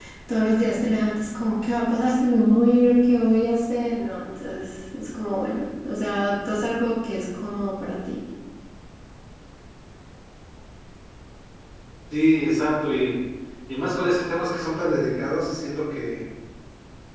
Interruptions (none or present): none